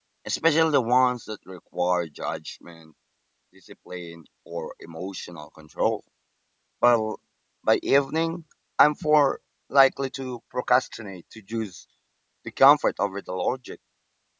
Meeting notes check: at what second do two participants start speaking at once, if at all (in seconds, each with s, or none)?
none